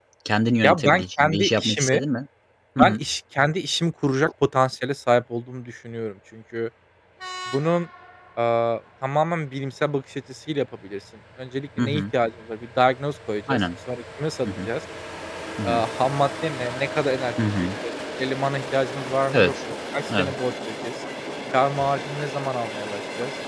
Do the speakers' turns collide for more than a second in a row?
Yes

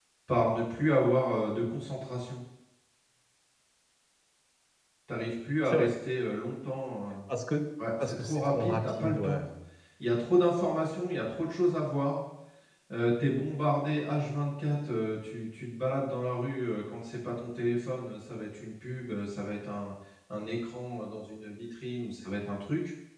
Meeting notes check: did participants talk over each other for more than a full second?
Yes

